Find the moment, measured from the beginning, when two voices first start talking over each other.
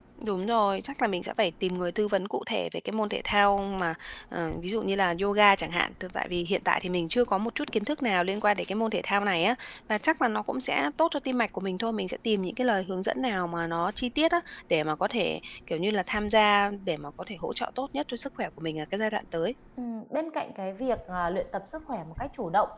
none

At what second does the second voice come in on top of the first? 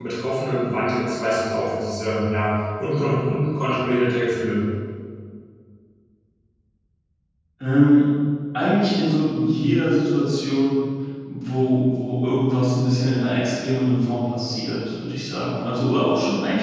none

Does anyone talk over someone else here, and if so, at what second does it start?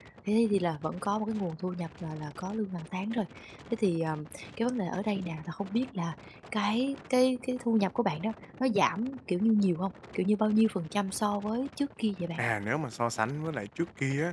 none

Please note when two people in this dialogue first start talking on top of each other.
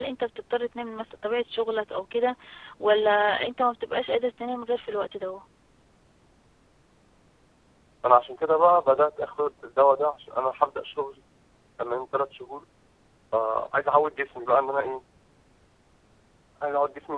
none

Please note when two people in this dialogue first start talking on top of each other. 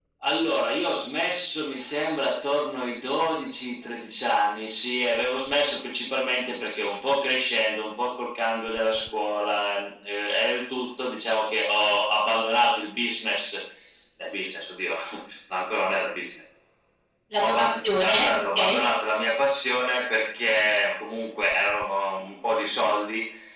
17.4 s

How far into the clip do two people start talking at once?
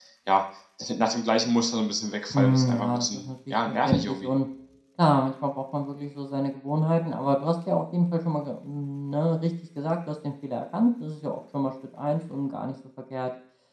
2.3 s

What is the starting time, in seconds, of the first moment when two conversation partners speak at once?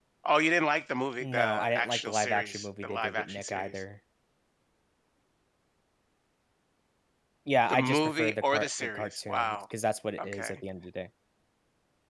1.2 s

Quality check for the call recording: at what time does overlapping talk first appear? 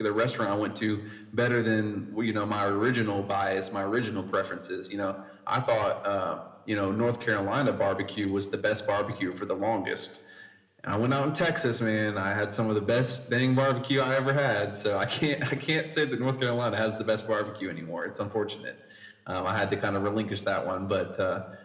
none

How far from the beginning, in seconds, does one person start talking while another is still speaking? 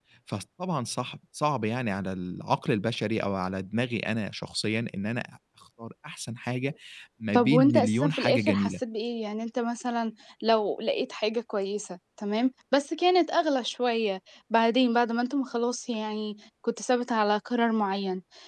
7.3 s

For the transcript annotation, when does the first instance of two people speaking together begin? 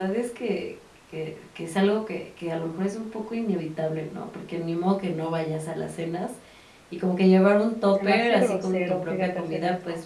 8.0 s

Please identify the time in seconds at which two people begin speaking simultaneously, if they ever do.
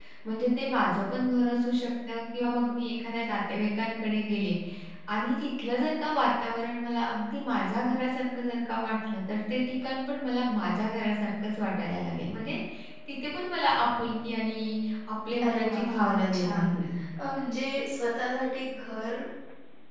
15.4 s

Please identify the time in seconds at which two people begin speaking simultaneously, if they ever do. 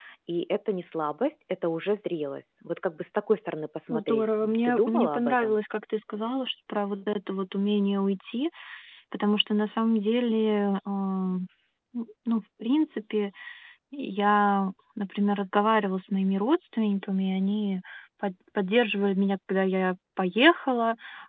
3.9 s

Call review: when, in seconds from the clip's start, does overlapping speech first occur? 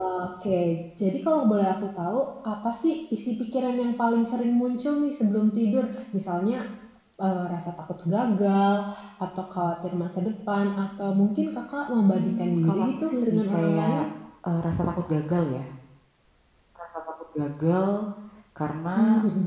12.1 s

